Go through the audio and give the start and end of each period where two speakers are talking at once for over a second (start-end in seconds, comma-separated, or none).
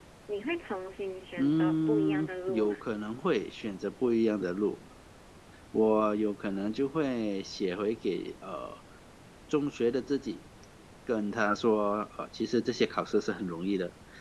1.4-2.8